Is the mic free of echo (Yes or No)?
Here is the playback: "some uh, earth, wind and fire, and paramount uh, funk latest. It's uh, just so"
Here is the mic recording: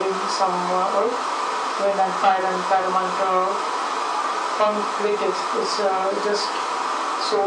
No